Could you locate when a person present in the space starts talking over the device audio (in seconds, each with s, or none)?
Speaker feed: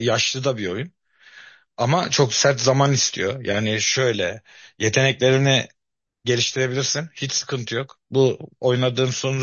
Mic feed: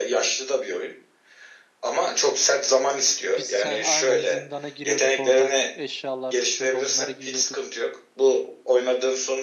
3.3 s